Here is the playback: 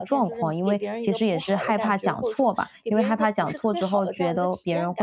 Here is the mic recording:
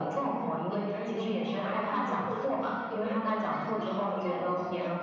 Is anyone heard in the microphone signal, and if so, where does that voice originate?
both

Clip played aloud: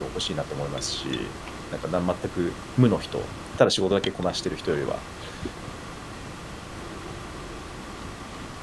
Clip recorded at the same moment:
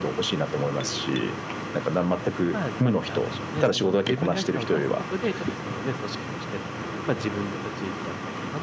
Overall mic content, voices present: both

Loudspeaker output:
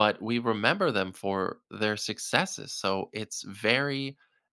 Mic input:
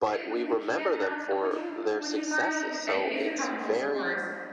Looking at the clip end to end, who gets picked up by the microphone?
both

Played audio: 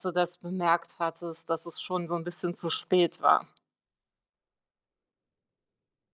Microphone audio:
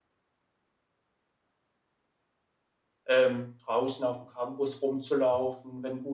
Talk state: user only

